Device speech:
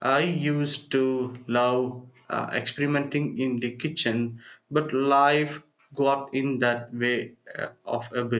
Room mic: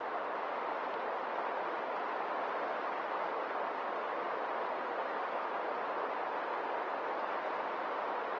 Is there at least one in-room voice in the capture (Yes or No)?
No